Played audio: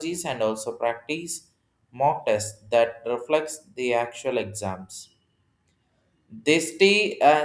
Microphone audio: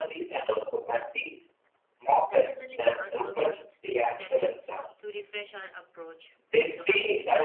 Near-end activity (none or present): present